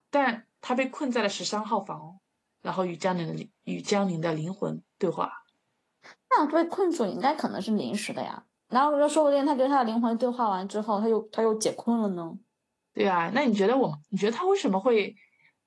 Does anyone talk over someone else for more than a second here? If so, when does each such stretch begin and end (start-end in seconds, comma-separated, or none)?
none